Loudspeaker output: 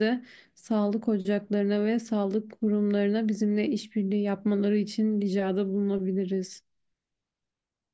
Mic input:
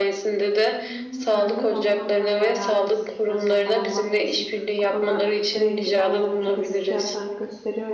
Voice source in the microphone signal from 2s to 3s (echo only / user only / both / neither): both